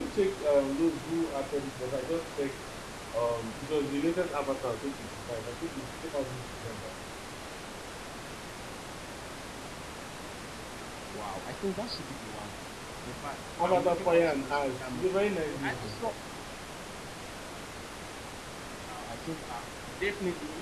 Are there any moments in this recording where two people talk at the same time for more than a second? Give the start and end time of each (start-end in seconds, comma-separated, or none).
13.6-15.2